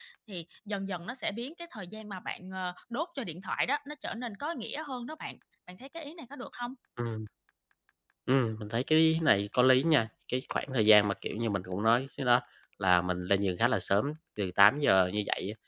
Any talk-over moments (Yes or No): No